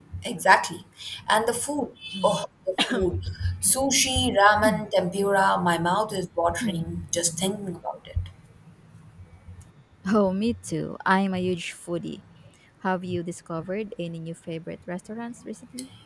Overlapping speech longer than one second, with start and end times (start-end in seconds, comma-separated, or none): none